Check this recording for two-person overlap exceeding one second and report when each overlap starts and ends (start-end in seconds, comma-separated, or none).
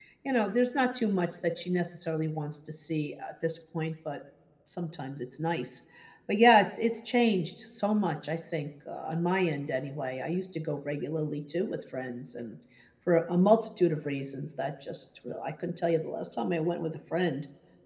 none